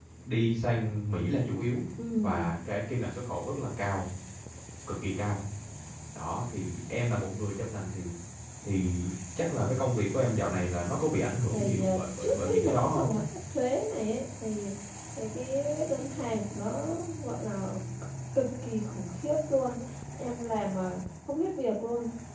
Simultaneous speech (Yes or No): Yes